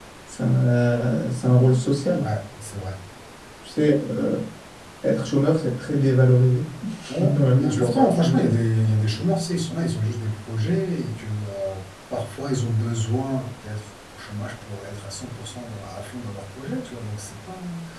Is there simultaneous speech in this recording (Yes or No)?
Yes